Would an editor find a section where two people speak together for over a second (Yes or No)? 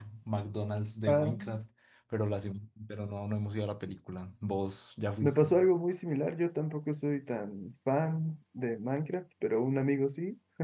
No